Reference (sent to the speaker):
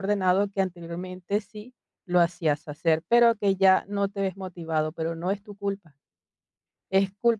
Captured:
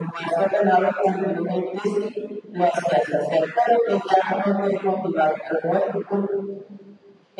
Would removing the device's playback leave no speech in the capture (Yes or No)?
Yes